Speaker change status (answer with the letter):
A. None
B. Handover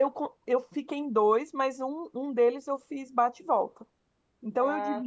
A